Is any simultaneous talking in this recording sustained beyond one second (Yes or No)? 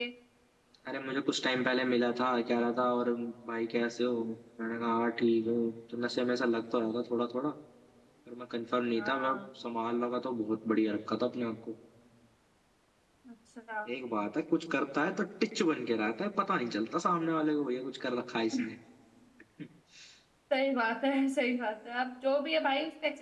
No